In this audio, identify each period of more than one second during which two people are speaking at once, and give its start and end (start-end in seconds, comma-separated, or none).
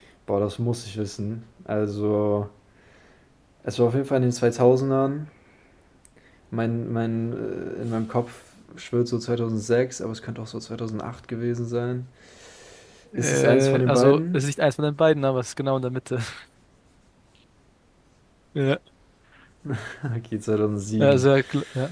13.2-14.4